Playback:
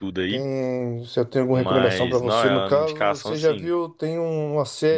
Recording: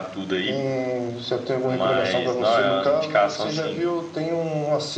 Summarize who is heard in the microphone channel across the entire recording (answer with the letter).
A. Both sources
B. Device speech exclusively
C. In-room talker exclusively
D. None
B